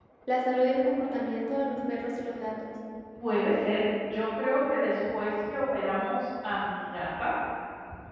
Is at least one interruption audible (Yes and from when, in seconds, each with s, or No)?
No